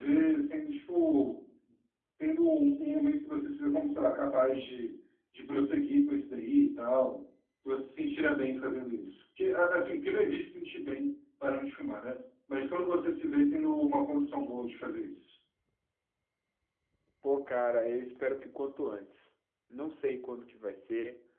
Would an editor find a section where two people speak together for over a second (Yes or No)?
No